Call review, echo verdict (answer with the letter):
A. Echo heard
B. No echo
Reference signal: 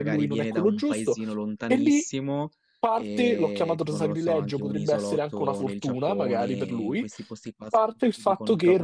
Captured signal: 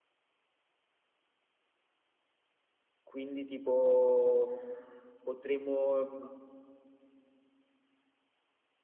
B